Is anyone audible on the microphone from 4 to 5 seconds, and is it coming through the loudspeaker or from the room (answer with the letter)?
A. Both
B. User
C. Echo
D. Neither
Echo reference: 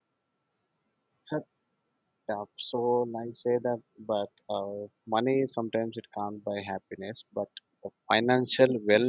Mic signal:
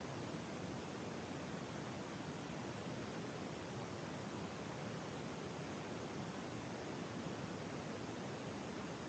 D